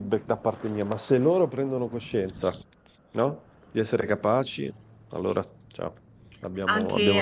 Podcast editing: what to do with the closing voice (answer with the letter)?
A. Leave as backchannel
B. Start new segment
B